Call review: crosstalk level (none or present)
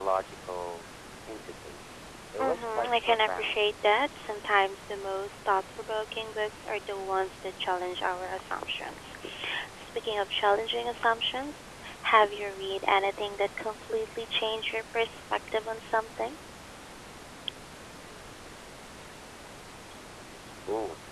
present